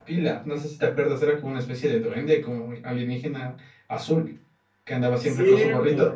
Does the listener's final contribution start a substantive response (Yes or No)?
Yes